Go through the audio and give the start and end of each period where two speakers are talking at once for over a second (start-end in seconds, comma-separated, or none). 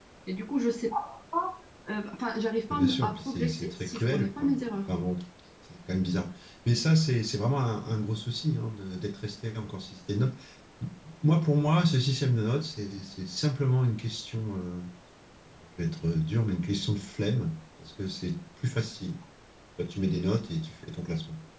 2.7-4.8